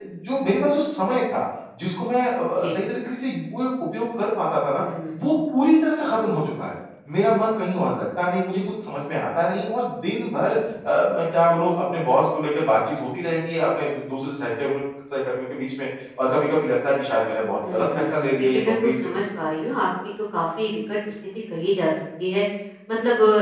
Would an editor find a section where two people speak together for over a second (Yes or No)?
Yes